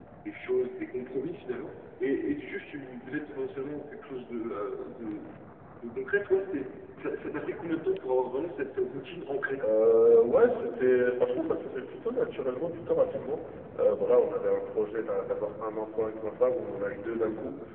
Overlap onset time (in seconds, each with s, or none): none